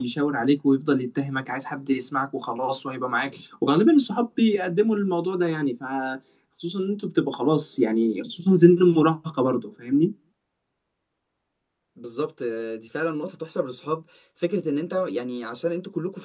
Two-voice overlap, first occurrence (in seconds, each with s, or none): none